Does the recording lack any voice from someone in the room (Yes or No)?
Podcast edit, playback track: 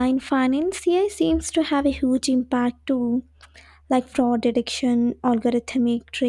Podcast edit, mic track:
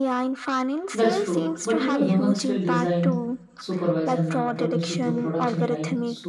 No